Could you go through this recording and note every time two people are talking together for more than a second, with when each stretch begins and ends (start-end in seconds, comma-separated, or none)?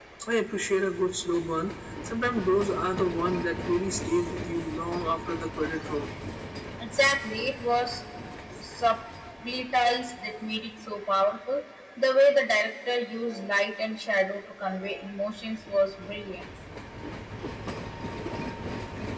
none